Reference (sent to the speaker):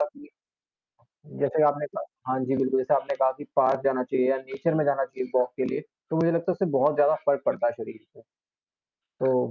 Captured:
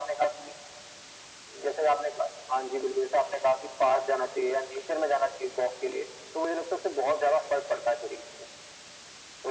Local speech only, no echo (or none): none